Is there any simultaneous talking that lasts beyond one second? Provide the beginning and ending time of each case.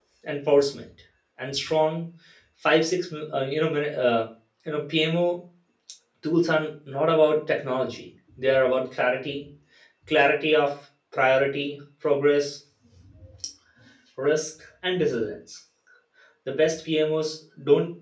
none

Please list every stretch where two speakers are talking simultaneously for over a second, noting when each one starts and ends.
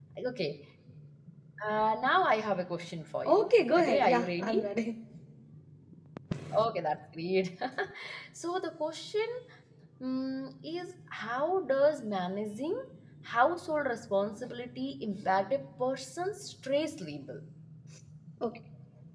3.2-4.7

